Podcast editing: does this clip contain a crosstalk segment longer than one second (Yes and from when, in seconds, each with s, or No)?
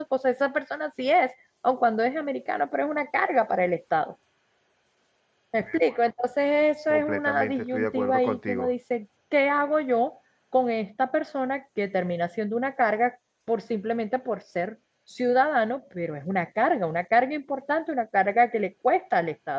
Yes, from 6.9 s